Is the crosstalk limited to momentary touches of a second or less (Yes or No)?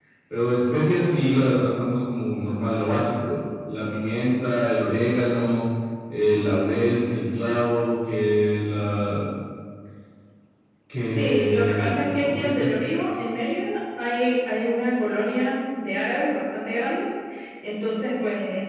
No